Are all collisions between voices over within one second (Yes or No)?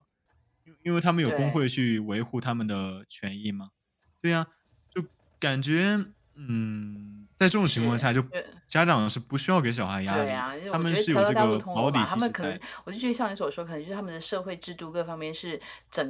No